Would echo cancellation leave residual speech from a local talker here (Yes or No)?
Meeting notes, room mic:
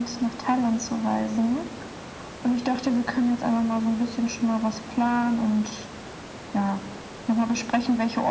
No